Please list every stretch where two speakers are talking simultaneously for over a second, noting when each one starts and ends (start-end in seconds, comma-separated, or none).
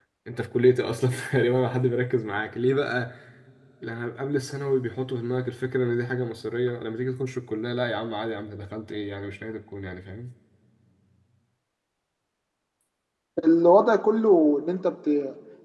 none